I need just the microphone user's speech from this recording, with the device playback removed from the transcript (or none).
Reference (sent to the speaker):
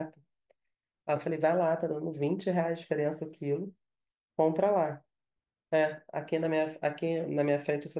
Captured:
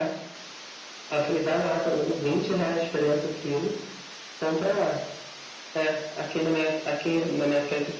none